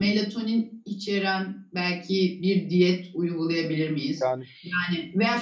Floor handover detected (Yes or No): No